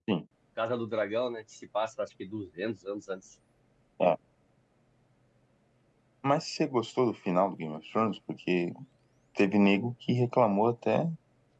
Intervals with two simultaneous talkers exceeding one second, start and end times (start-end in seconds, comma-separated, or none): none